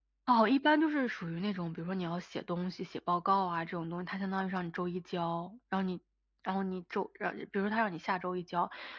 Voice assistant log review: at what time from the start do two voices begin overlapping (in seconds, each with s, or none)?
none